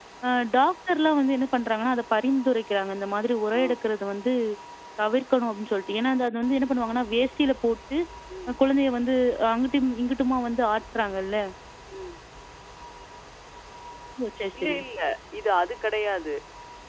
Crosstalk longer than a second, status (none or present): none